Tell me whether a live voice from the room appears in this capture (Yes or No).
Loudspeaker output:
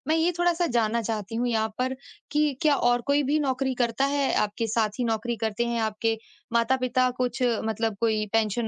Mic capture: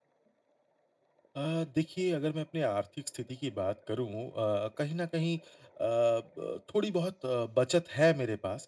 Yes